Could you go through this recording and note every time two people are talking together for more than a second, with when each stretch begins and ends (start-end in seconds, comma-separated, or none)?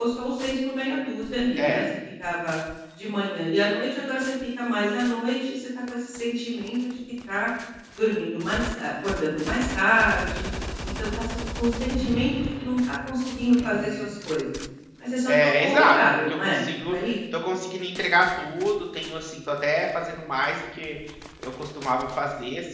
15.2-17.0